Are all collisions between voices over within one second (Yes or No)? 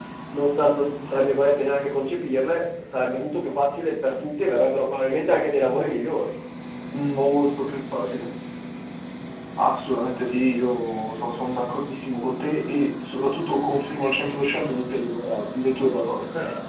Yes